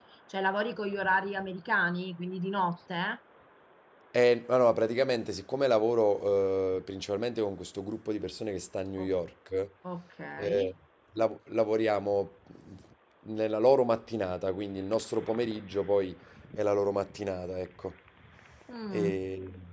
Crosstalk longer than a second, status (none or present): none